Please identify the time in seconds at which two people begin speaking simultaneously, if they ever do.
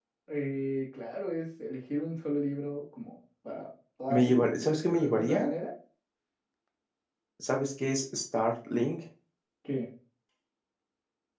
4.1 s

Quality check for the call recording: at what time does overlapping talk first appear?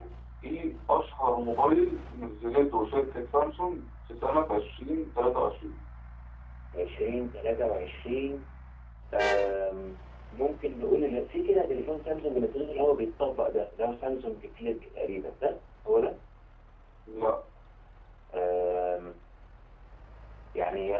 none

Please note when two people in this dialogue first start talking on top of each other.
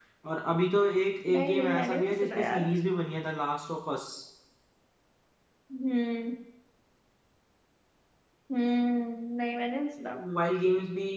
1.3 s

